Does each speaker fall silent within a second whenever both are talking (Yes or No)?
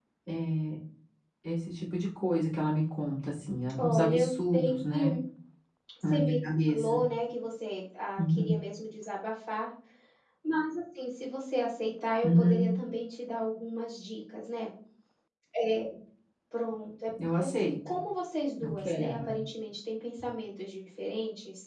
No